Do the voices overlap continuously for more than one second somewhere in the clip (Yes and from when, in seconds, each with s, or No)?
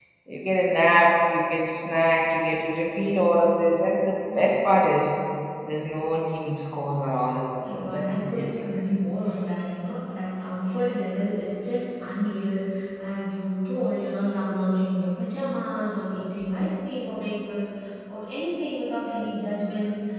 Yes, from 7.6 s